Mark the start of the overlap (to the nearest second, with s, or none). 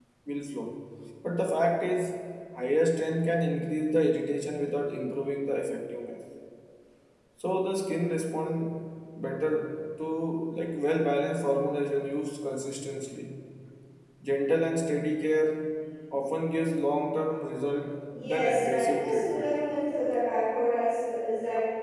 18 s